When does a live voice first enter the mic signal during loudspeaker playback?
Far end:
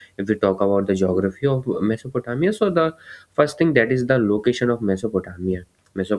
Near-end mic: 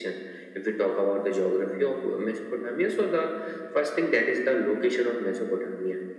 none

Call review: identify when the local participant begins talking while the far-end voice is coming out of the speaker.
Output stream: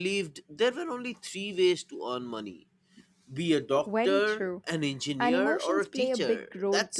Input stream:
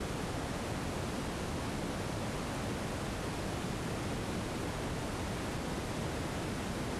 none

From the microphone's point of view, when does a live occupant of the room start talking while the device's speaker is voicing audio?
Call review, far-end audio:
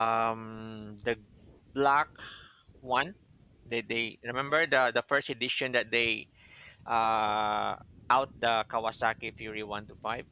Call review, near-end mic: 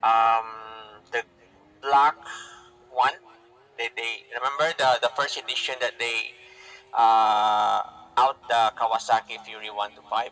none

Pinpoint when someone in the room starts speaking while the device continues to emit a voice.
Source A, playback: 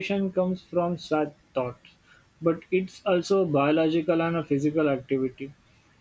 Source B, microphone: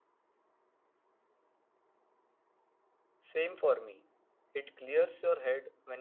3 s

